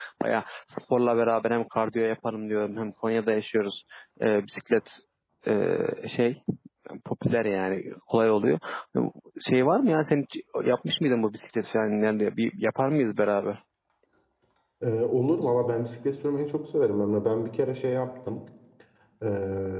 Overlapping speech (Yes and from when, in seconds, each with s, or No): No